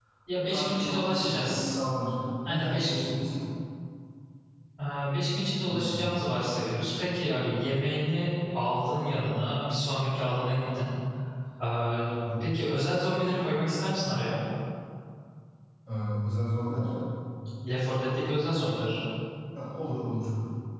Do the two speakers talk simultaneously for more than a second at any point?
Yes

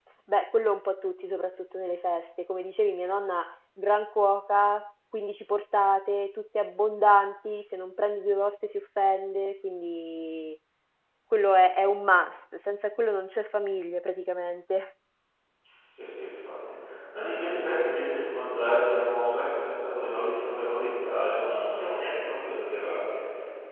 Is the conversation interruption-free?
Yes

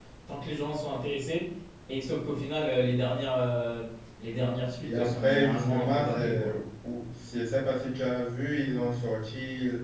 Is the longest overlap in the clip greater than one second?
Yes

